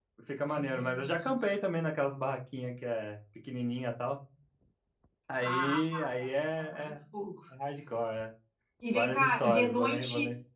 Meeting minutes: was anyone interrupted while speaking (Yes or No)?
Yes